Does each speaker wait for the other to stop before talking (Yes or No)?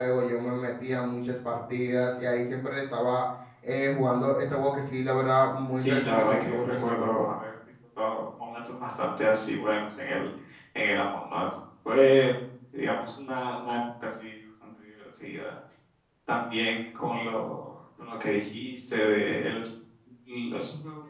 No